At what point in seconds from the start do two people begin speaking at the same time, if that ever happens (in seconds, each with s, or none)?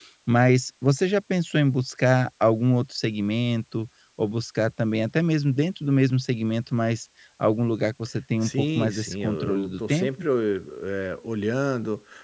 8.4 s